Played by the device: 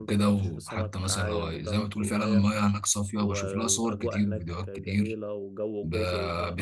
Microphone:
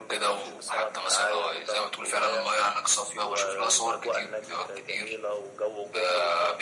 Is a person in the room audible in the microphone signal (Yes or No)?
No